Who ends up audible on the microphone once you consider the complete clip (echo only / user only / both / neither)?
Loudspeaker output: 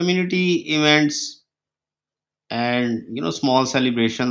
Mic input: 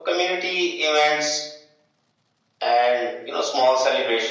echo only